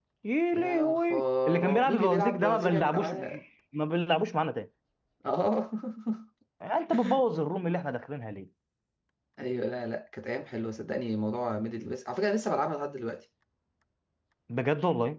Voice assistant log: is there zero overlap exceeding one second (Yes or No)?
No